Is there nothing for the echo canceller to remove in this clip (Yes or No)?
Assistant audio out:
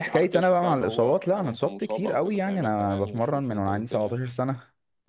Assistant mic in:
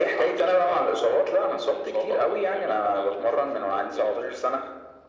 No